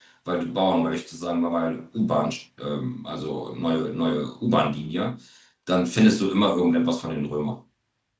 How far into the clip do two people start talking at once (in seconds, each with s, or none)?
none